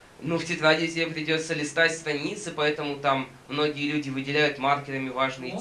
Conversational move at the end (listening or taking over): listening